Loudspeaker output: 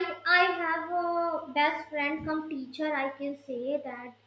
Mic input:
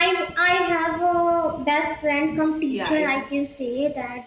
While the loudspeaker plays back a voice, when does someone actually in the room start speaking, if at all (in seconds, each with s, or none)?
2.6 s